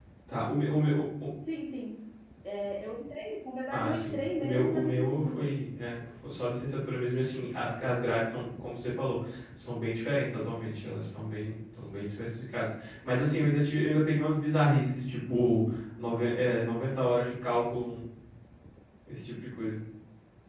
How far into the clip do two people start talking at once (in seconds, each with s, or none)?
3.7 s